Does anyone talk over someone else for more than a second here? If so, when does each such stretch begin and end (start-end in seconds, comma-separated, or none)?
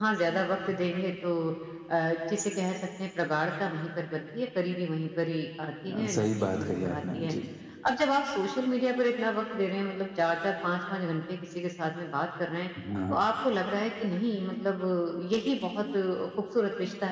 5.9-7.3